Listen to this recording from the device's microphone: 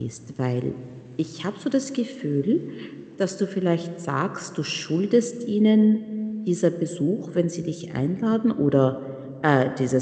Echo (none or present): none